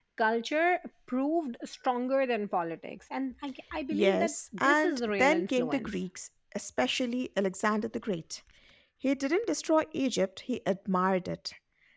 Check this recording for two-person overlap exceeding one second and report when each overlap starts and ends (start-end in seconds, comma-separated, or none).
3.9-6.0